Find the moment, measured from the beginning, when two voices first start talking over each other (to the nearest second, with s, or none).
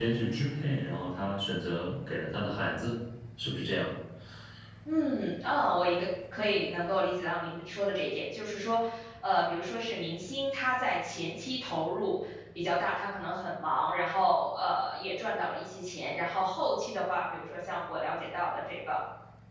none